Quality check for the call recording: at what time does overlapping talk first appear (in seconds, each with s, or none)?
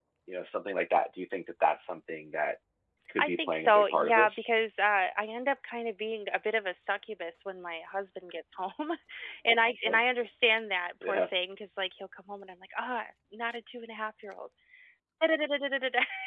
3.2 s